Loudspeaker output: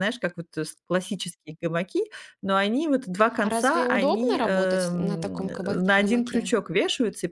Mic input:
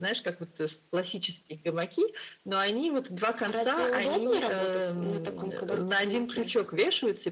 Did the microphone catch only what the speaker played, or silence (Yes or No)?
Yes